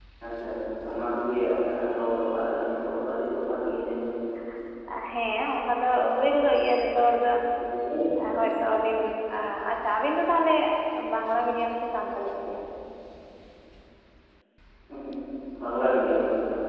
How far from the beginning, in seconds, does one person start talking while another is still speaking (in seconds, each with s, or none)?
none